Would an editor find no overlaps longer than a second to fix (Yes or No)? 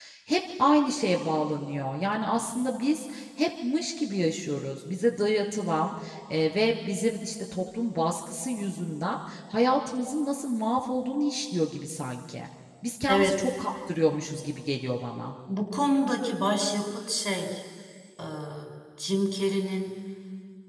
Yes